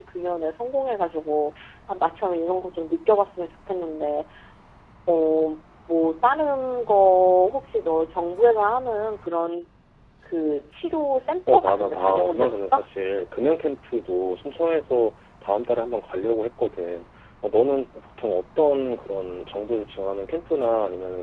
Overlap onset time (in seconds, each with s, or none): 11.5 s